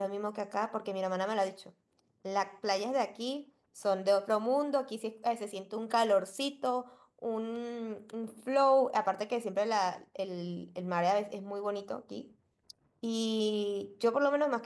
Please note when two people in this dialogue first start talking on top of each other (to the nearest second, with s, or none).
none